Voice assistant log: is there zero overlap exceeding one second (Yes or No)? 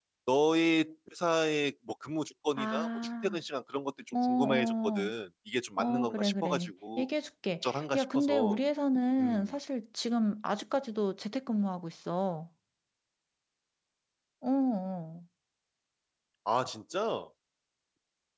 No